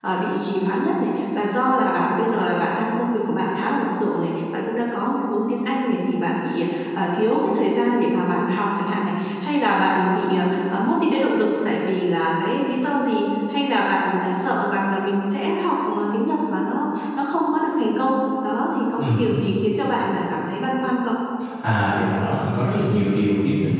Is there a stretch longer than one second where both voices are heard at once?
No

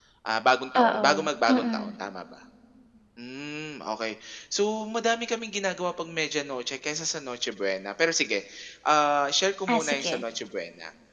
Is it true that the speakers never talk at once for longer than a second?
No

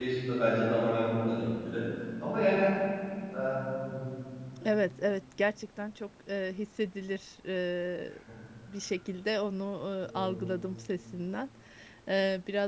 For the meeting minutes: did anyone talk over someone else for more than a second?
No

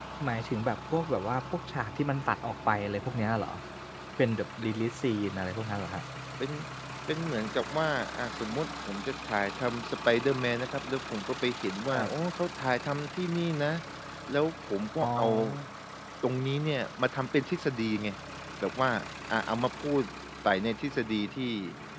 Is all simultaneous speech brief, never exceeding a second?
Yes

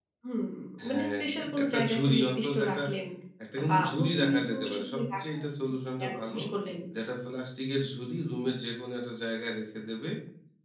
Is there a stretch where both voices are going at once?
Yes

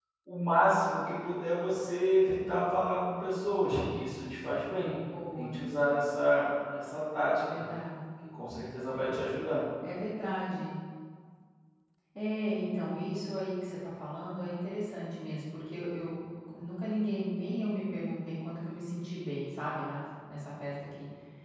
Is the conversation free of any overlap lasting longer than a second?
Yes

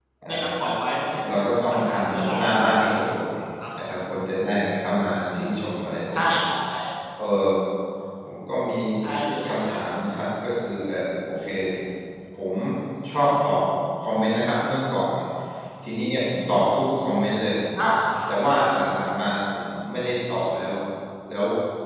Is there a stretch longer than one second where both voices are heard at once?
Yes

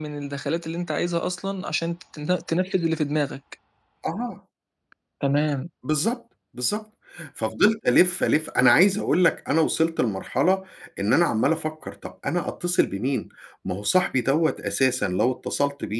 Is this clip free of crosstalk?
Yes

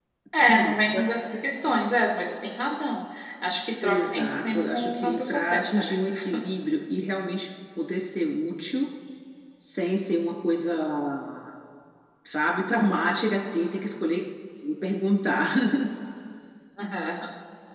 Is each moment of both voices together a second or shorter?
No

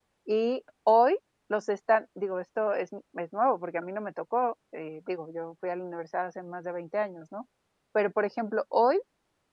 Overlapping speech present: No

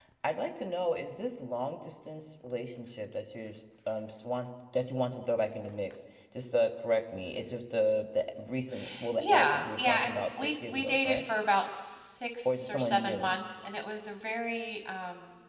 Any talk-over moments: Yes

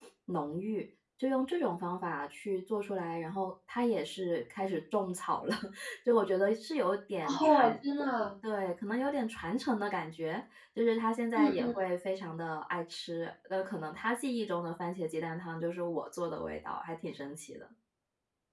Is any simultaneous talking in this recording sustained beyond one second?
No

